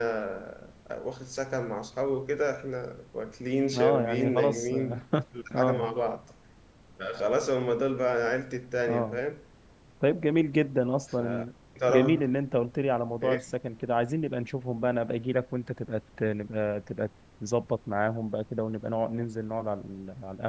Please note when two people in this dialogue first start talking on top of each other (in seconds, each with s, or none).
3.7 s